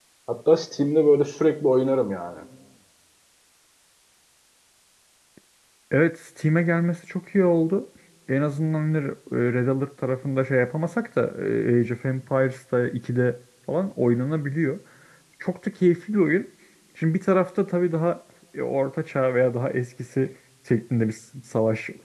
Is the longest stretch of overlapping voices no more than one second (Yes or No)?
Yes